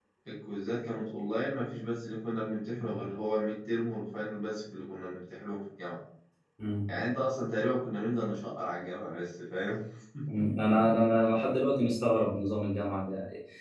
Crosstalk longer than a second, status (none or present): none